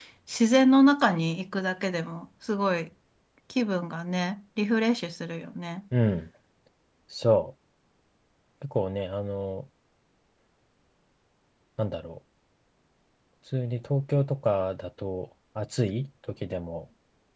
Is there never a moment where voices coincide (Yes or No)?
Yes